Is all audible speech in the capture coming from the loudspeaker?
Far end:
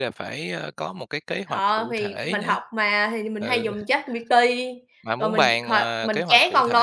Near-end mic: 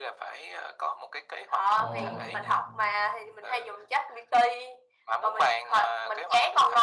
No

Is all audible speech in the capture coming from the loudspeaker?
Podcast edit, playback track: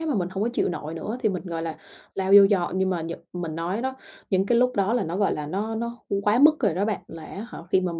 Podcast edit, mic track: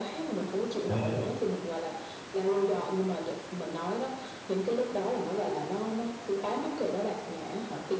No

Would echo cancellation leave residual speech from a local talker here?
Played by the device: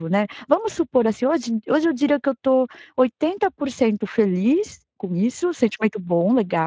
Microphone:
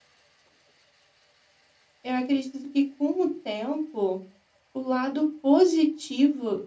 Yes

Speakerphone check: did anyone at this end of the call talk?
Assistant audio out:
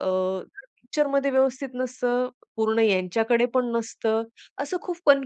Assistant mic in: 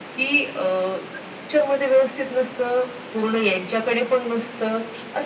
No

